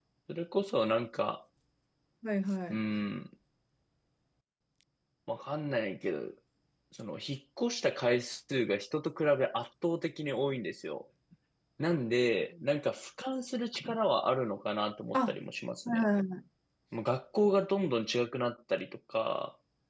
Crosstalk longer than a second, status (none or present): none